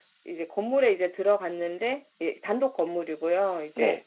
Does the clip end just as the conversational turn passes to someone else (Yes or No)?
No